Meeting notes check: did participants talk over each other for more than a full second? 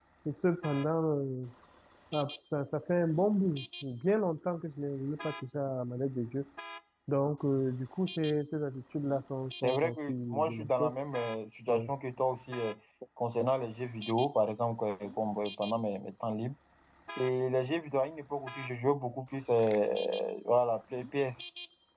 Yes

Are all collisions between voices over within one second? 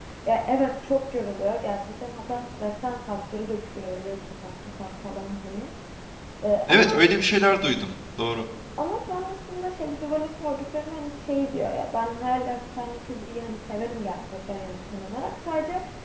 Yes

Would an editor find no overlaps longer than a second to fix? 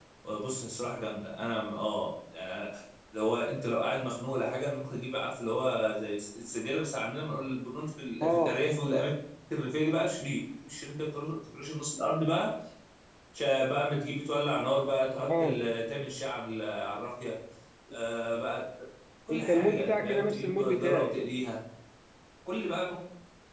No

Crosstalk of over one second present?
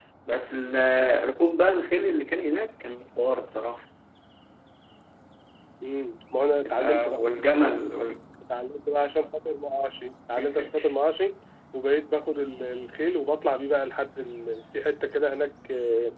No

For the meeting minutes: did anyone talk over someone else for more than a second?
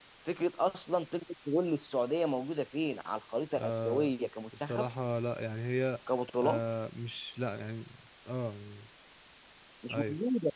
No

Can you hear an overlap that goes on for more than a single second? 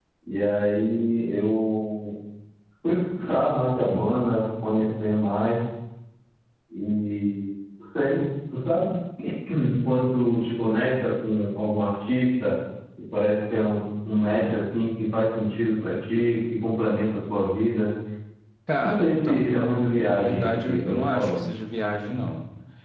Yes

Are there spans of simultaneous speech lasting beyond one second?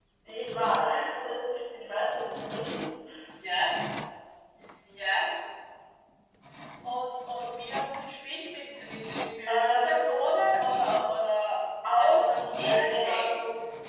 Yes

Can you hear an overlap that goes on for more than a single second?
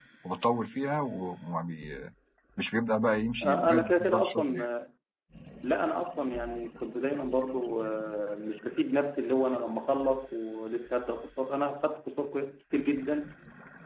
Yes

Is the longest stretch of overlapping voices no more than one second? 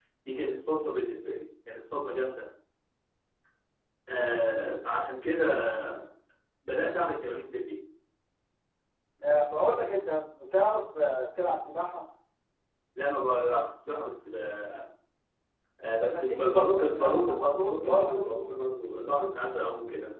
No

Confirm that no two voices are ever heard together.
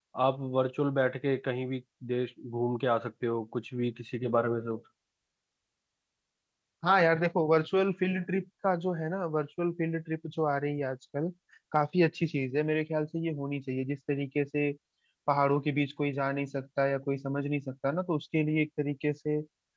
Yes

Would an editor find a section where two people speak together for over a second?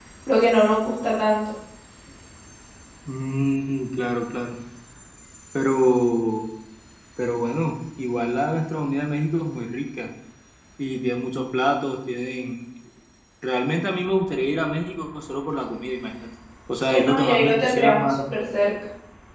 Yes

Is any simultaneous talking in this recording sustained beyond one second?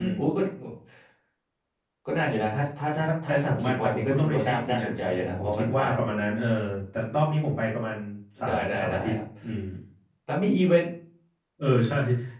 Yes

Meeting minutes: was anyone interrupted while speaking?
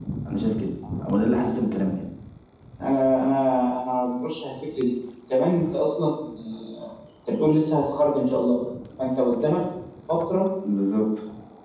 No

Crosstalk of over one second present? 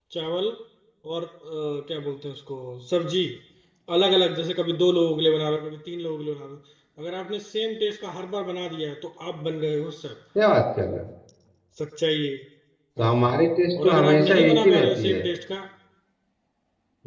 Yes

